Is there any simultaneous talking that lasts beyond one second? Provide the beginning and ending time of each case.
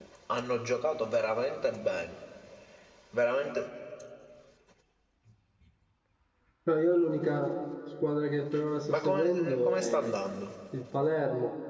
8.9-10.1

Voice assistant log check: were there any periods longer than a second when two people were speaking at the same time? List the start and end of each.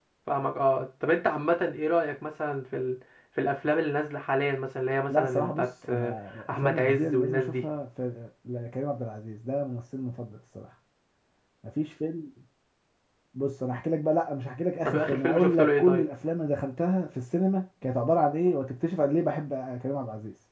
5.1-7.6, 14.8-16.1

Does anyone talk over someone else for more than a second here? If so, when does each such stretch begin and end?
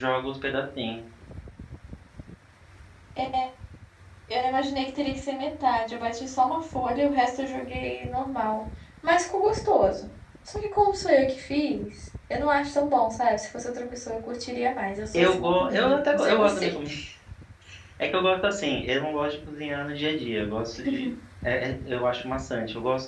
15.1-16.7

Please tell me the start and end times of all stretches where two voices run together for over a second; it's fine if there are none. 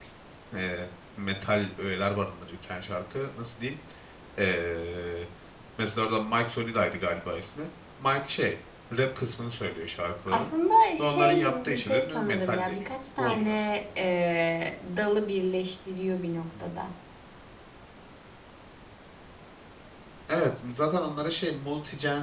11.0-13.7

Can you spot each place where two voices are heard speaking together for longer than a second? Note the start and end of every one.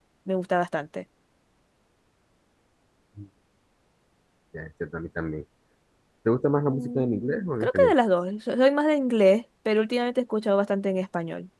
6.7-7.9

